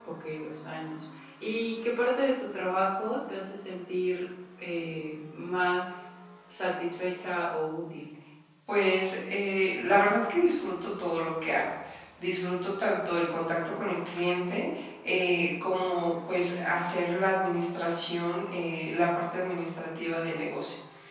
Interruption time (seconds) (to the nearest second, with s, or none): none